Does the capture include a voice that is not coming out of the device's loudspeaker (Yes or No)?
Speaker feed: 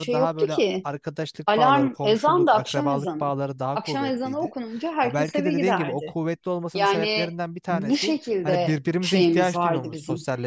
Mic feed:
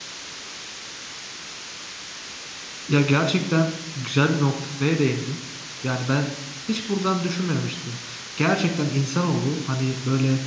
Yes